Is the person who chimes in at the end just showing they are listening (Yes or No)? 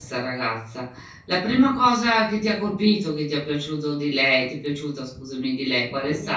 No